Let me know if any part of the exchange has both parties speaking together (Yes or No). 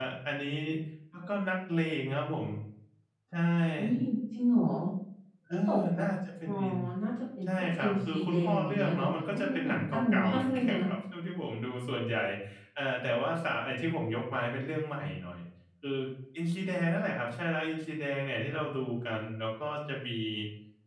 Yes